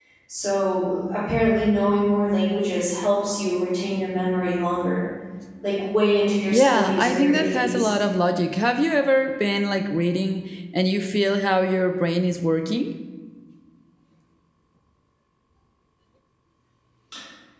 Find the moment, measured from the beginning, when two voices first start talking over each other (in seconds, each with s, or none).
6.5 s